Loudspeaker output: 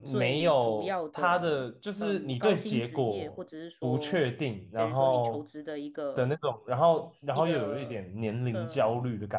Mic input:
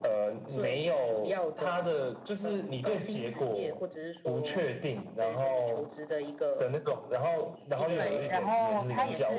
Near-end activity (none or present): present